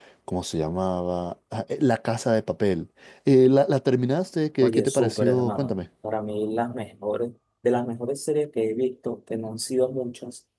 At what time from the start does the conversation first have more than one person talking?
4.6 s

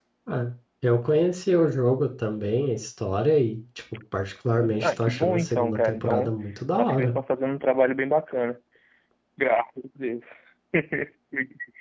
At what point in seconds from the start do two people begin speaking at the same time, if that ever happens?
4.8 s

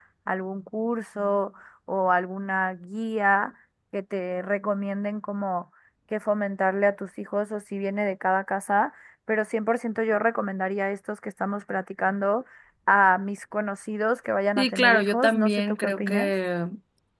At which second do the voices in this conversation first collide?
14.6 s

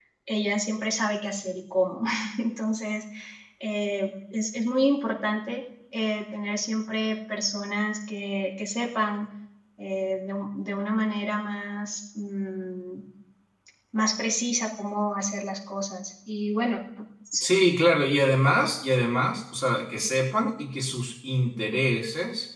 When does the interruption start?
none

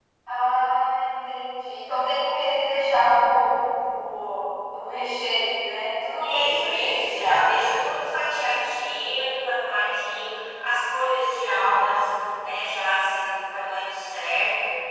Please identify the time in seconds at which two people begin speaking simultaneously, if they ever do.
6.2 s

